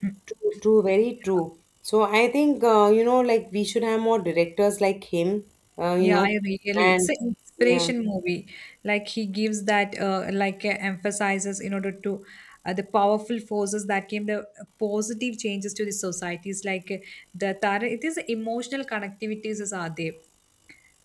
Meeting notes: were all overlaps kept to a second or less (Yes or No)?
Yes